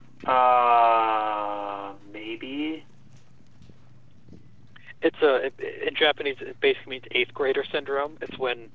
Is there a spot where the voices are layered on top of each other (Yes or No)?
No